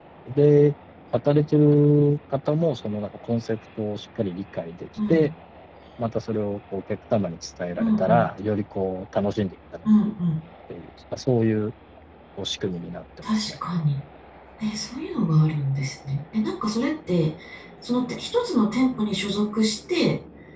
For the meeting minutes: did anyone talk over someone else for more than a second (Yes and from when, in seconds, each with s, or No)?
No